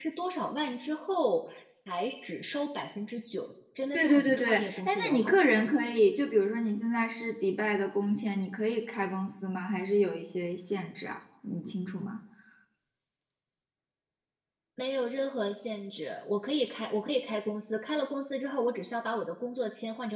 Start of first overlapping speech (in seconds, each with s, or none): 3.9 s